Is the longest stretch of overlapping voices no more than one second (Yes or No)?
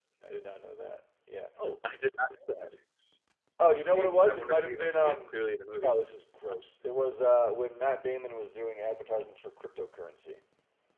No